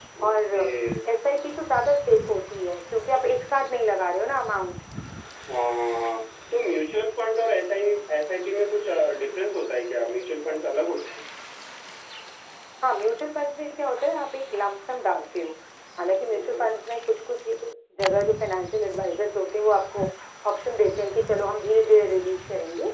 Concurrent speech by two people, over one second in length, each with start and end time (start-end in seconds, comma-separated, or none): none